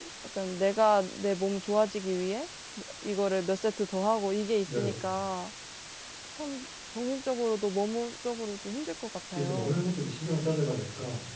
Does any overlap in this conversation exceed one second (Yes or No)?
No